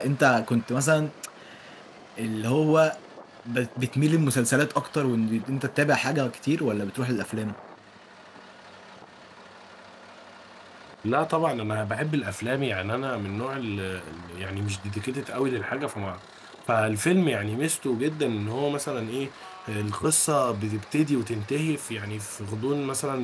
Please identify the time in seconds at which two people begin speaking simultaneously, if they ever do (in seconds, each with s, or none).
none